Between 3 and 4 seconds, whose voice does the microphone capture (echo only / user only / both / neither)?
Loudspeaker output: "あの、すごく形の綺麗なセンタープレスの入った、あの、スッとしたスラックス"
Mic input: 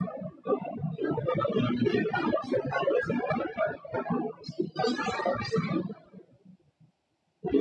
echo only